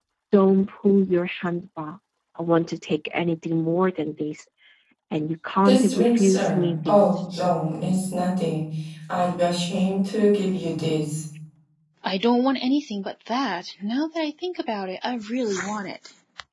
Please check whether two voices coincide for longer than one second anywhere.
Yes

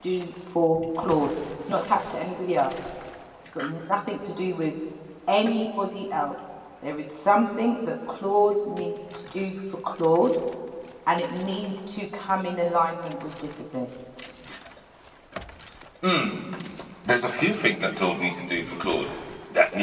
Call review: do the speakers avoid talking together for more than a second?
Yes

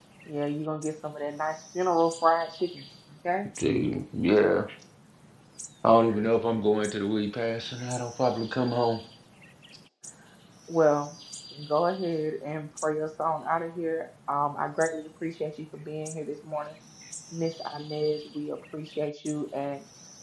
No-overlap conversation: Yes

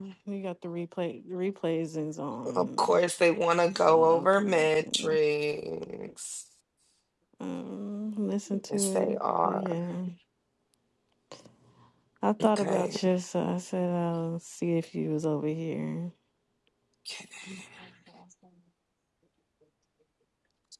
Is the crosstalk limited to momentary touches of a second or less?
No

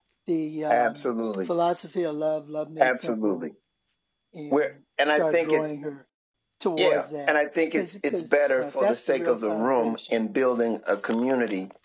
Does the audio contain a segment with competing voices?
Yes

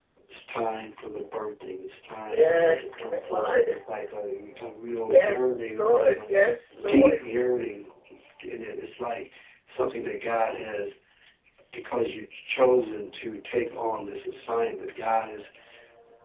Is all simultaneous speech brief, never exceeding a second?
No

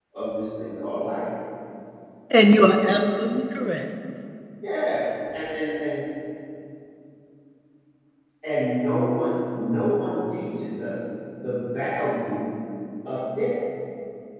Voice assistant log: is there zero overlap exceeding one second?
Yes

